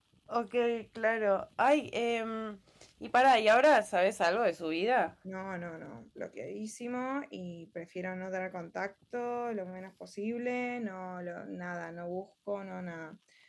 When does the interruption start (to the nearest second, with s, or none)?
none